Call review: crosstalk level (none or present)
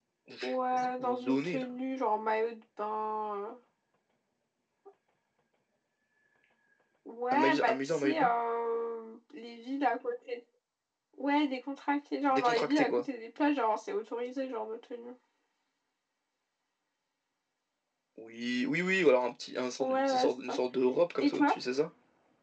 present